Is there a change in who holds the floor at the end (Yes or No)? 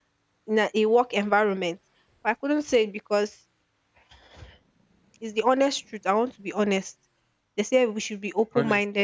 No